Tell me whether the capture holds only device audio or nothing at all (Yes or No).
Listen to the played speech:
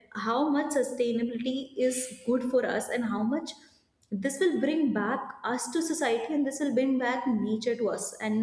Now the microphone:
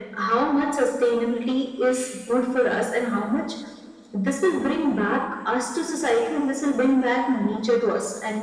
Yes